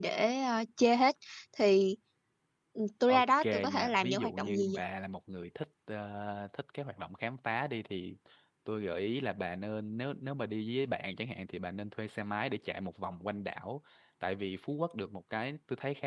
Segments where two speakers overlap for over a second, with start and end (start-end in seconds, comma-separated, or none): 3.1-4.8